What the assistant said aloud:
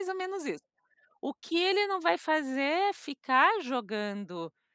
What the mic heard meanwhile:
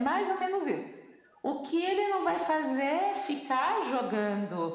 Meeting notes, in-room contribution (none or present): none